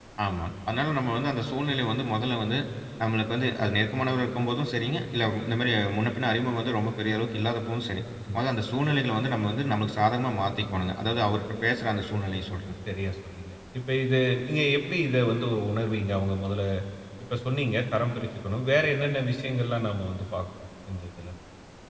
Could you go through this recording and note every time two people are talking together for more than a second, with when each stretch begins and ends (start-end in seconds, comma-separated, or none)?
none